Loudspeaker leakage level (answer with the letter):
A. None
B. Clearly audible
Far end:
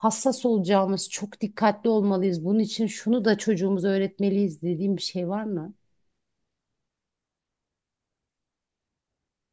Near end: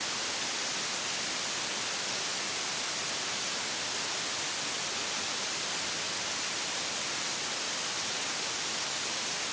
A